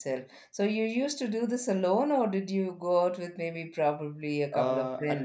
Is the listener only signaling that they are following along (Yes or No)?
No